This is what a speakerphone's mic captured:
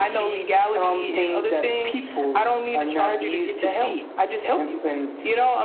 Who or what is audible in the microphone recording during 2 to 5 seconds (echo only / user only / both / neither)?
echo only